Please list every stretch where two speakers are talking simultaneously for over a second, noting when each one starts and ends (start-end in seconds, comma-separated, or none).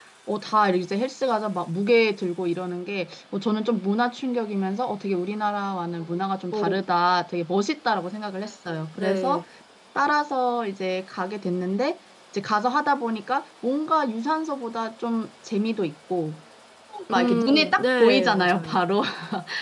17.1-18.8